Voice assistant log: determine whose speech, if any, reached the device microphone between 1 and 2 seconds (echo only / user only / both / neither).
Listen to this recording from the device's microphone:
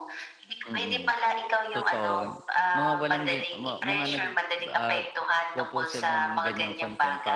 both